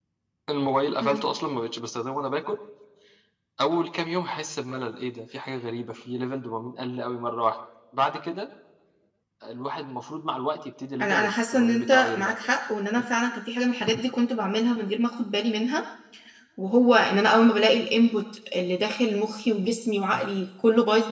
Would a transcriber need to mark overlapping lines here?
Yes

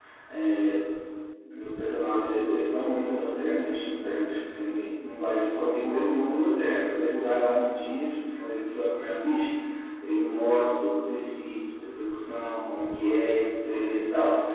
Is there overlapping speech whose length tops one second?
No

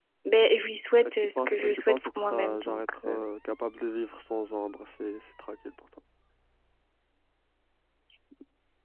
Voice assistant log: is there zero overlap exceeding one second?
No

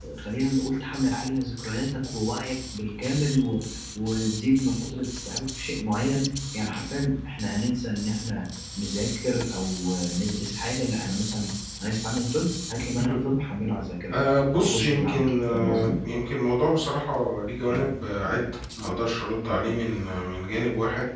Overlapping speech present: Yes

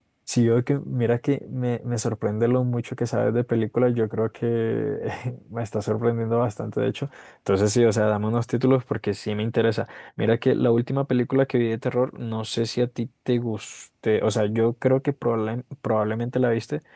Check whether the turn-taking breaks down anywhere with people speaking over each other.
No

